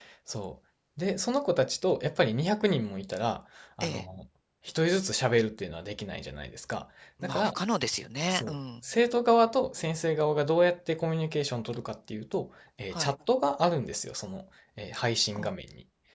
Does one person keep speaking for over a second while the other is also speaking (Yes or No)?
No